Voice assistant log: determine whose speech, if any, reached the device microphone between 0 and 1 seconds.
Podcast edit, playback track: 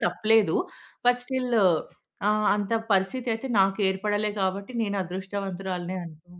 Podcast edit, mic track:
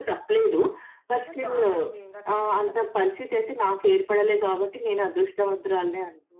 echo only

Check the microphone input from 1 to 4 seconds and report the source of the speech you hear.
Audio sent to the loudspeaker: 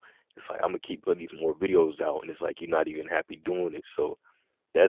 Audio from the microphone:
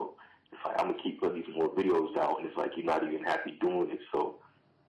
echo only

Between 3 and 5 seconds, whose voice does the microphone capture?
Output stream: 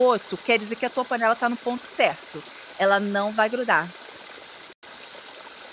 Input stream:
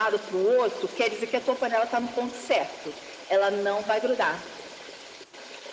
echo only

